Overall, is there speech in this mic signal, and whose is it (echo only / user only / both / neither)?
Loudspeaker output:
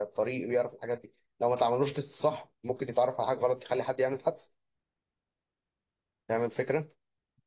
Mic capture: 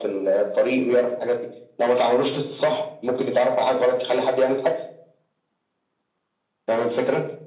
echo only